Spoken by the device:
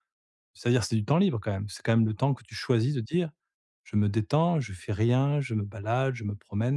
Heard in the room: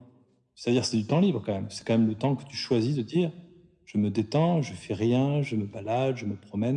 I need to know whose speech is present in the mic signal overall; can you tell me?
echo only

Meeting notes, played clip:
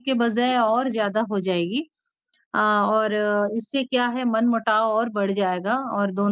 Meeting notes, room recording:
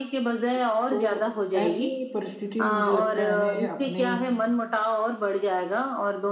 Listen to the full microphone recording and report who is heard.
both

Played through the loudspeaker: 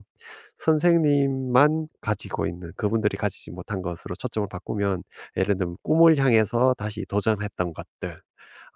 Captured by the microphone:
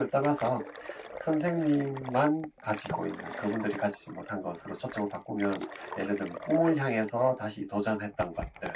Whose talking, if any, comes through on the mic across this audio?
echo only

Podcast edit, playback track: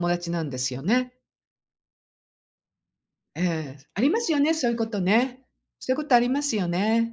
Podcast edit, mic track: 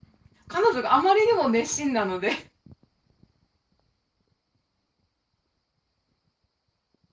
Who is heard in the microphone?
user only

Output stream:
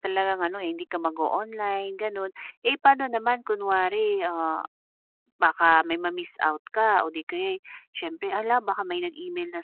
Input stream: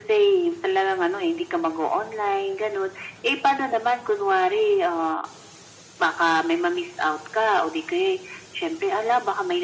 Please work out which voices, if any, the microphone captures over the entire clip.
echo only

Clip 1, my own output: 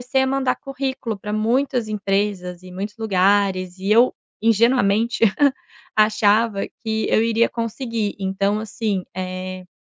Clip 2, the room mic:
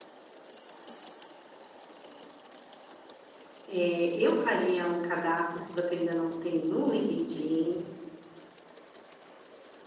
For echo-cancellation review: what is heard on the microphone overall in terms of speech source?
user only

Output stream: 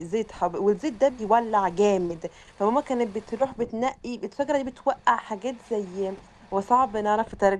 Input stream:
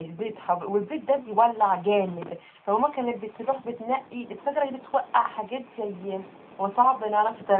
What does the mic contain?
echo only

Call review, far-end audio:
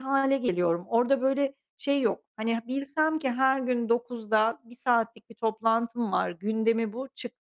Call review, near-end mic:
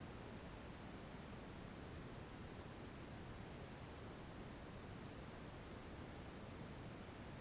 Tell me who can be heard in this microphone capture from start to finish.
neither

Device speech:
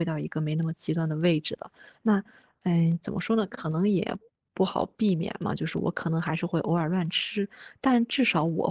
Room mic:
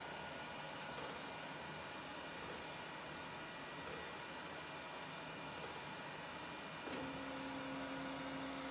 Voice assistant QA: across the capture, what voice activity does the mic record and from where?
neither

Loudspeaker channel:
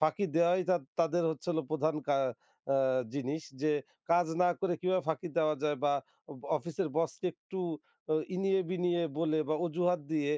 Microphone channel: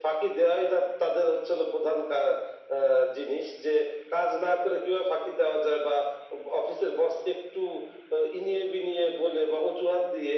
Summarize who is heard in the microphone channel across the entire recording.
echo only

